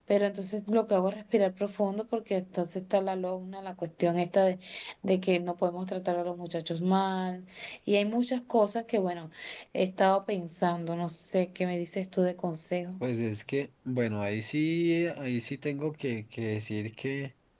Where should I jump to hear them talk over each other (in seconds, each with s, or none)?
none